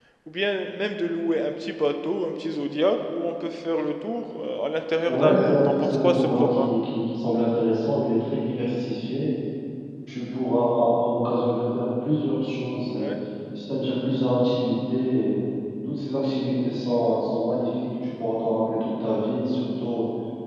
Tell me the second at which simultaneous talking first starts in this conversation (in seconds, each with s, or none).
5.0 s